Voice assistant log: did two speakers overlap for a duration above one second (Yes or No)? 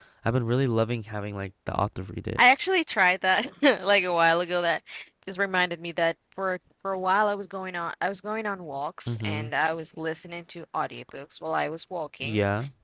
No